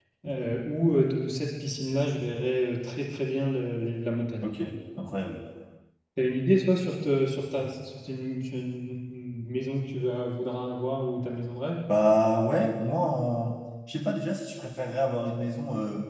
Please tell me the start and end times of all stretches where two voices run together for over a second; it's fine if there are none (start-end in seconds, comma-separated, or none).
none